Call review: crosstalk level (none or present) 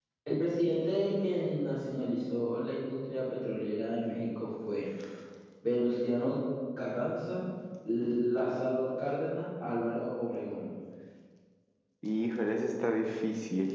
none